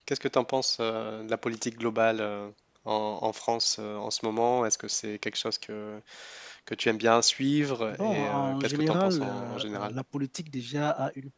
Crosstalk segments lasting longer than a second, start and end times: 7.9-9.9

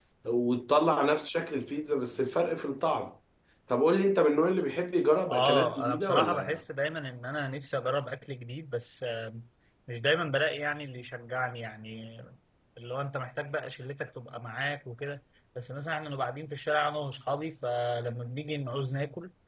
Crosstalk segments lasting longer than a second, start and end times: 5.3-6.6

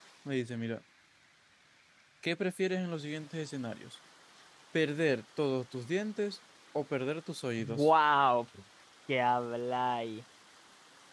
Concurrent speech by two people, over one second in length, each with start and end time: none

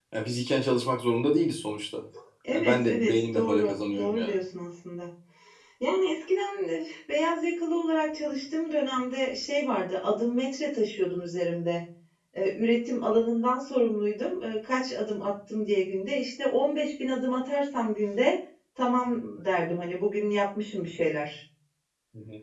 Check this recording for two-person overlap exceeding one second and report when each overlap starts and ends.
2.5-4.4

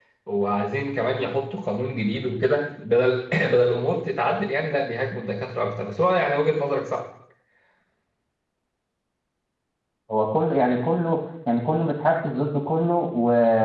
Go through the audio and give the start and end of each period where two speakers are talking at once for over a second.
none

